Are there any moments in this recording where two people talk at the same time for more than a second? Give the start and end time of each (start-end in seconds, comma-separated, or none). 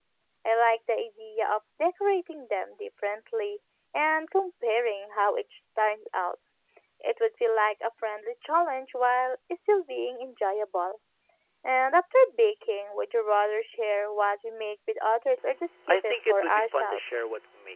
15.9-17.2